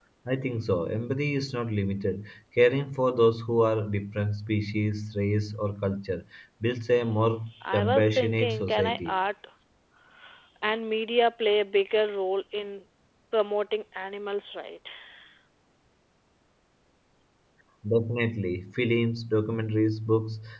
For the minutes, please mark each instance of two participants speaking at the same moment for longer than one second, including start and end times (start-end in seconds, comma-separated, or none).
7.8-9.2